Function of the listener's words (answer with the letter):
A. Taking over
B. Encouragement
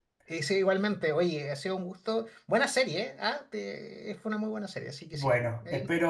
A